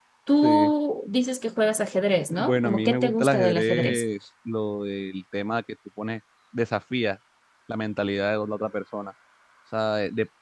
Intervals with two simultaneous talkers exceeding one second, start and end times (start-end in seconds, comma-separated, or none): 2.4-4.0